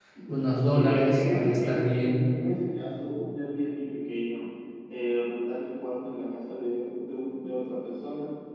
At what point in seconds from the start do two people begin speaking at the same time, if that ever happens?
0.6 s

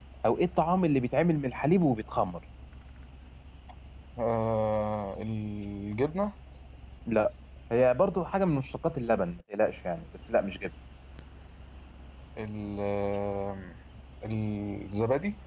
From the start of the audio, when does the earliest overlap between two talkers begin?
none

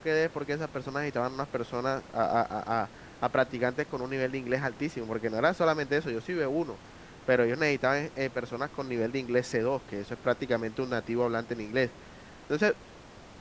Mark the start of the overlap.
none

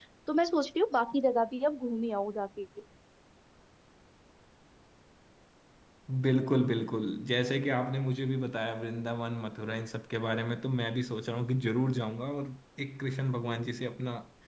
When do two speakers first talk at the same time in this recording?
none

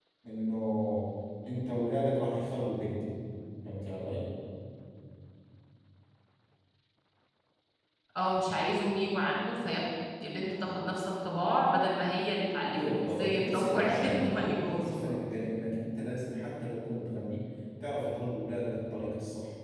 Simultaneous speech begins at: 12.7 s

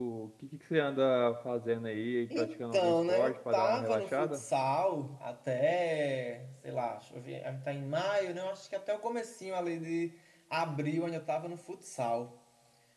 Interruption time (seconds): 2.3 s

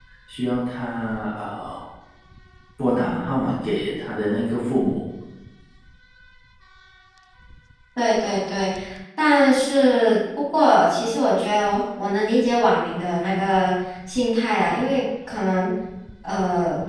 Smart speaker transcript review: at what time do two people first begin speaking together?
none

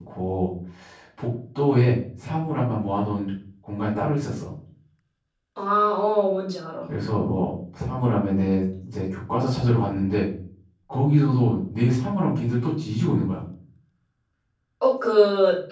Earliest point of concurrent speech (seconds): none

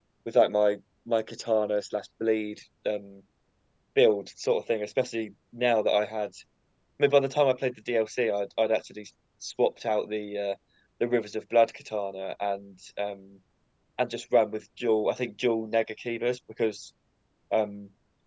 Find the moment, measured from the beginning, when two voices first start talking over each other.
none

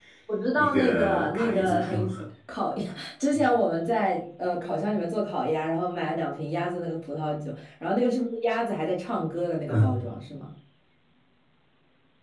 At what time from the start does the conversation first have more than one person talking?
0.6 s

